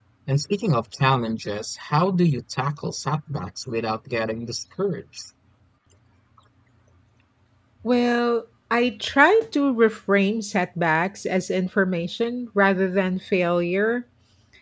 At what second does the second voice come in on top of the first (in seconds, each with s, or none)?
none